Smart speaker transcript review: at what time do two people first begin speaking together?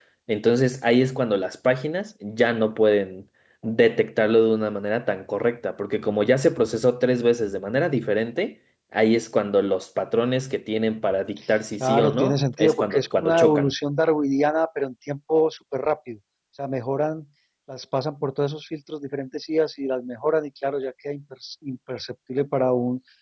12 s

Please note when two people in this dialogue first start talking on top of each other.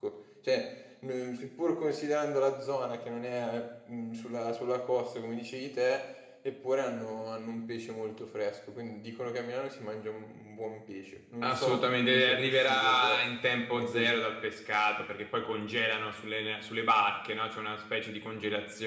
11 s

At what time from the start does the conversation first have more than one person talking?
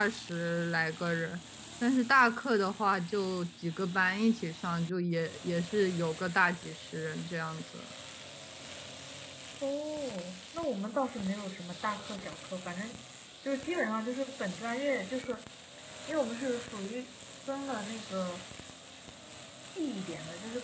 none

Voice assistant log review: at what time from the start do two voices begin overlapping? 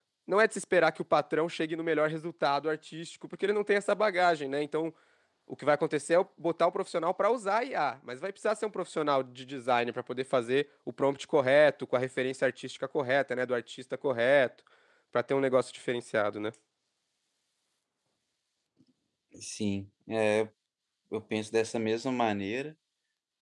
none

